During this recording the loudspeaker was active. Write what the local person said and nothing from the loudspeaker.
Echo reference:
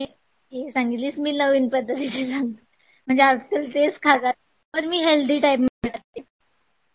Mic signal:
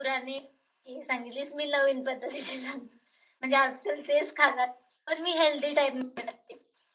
none

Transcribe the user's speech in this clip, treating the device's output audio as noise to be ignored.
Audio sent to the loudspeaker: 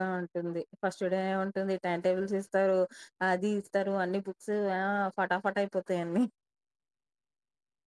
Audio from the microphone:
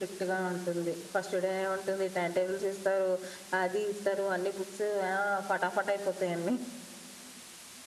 none

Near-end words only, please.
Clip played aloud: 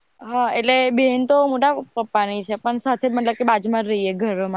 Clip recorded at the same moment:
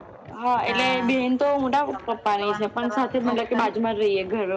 હા તમારે કરવાનું કરવાનું શોખ ખરી-

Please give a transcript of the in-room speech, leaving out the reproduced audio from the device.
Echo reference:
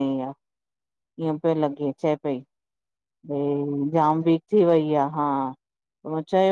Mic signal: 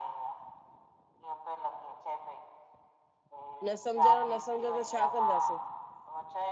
न सम्झण न सम्झ दो छा कंदासीं।

